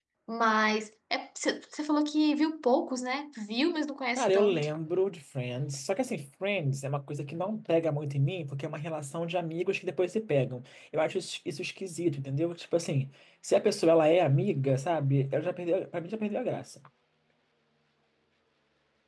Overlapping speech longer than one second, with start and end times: none

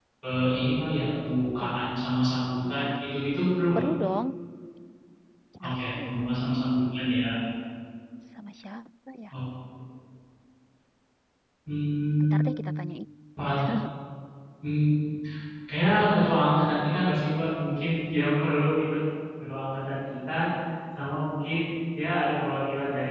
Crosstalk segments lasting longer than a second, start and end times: none

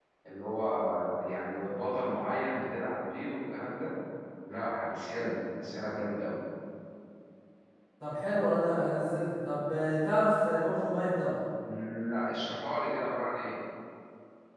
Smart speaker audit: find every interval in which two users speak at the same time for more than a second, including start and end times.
none

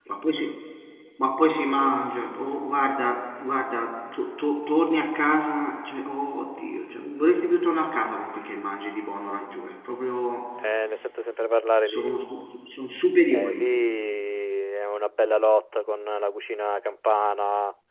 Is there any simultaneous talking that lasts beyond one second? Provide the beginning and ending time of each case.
none

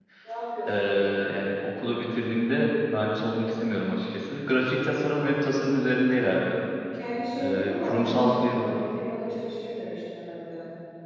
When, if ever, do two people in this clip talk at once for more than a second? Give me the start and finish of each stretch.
7.4-8.7

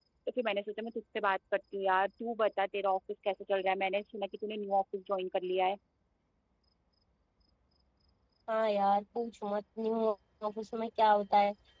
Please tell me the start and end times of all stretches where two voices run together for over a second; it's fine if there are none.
none

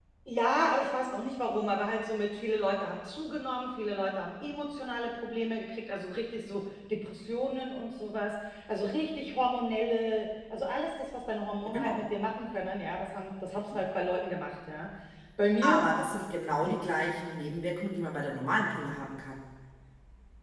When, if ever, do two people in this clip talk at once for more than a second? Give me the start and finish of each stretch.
none

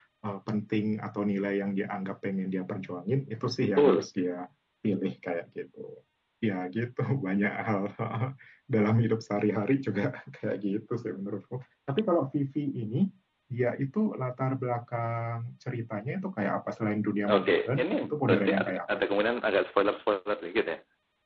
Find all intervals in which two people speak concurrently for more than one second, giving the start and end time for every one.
17.3-19.0

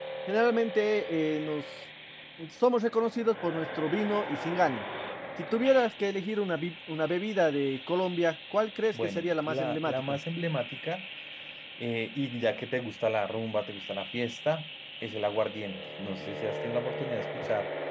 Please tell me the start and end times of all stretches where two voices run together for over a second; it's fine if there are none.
8.9-10.2

